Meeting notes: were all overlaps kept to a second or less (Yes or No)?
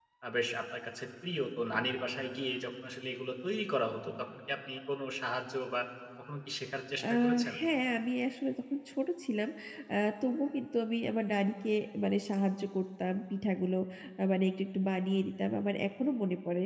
Yes